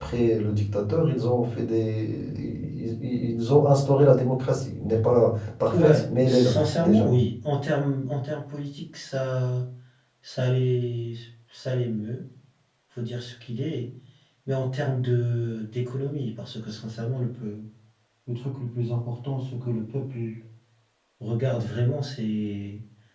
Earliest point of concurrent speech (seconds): 6 s

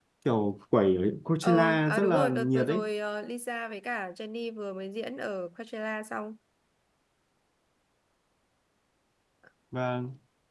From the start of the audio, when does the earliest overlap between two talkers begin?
1 s

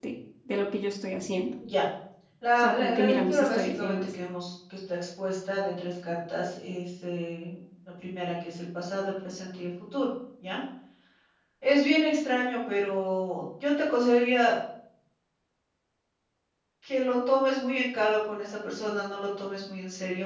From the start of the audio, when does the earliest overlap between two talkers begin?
3 s

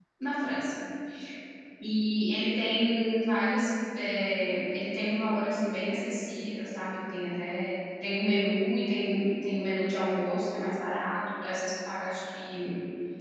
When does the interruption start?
none

